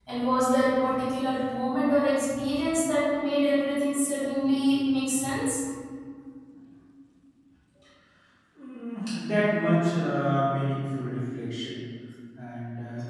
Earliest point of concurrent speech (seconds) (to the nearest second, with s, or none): none